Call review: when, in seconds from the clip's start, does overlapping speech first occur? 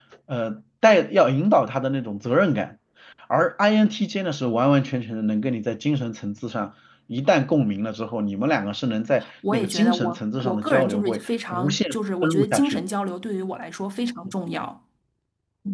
9.4 s

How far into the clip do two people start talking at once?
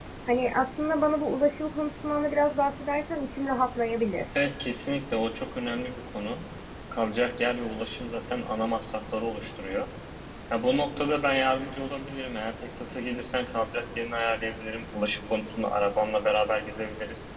none

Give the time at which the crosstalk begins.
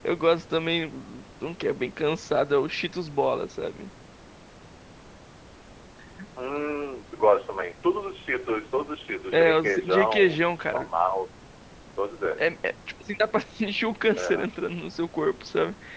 9.3 s

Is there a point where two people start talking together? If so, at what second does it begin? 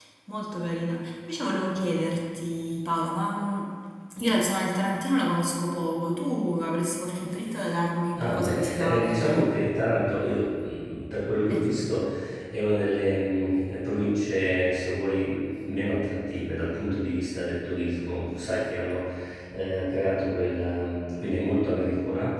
8.2 s

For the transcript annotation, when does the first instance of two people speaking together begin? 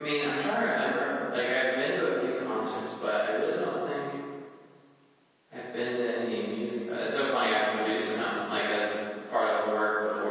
none

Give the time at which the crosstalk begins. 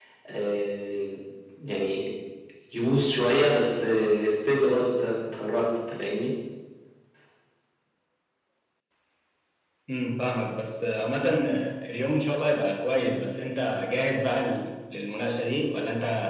none

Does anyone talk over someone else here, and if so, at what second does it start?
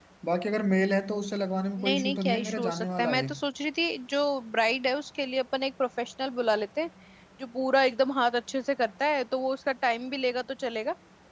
1.8 s

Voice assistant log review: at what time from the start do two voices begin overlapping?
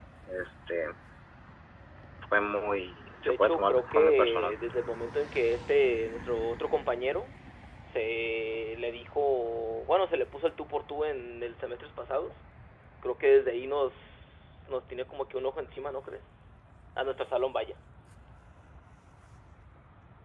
3.2 s

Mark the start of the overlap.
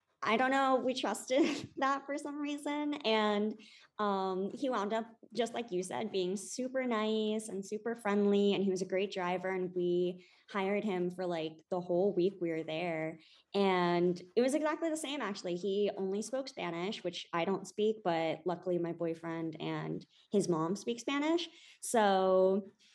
none

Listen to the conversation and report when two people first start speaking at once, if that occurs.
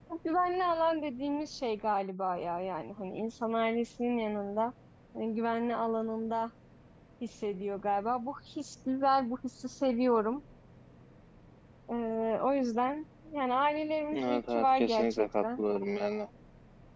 14.1 s

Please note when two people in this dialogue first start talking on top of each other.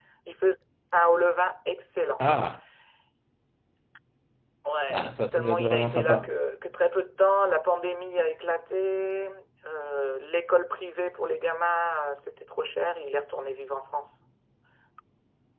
4.9 s

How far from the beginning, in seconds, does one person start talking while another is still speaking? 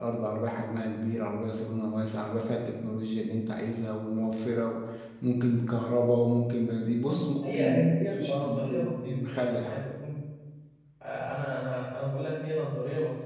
7.0 s

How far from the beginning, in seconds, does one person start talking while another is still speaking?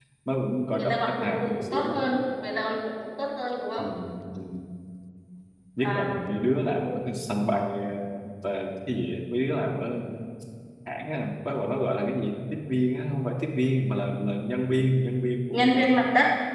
0.7 s

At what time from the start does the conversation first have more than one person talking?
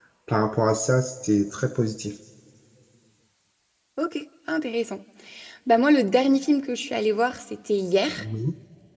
none

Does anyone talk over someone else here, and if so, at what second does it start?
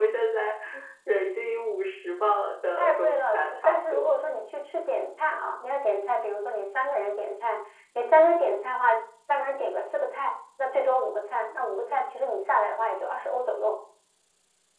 2.8 s

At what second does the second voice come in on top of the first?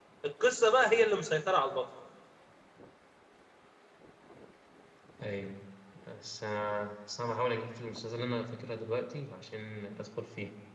none

